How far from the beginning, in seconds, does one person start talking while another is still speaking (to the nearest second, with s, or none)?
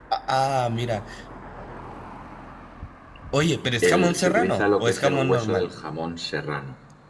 4 s